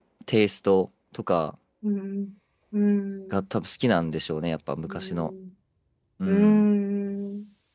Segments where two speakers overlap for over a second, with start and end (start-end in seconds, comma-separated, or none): none